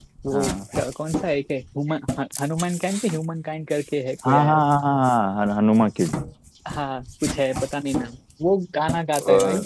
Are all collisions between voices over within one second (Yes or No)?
Yes